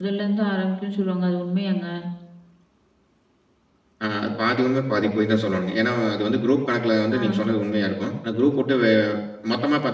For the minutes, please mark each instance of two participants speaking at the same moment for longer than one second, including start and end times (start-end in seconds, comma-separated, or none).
none